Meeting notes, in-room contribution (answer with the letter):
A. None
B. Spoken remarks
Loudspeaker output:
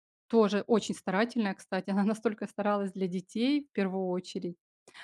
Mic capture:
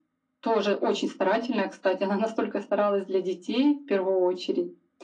A